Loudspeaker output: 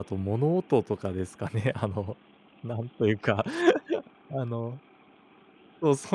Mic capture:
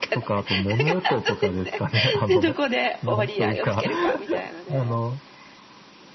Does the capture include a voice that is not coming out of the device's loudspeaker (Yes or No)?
Yes